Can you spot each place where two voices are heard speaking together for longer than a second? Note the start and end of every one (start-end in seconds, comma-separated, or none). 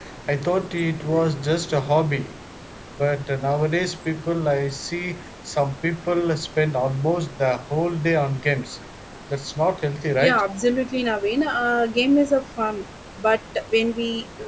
none